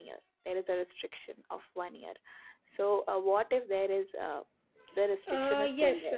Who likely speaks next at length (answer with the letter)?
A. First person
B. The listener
B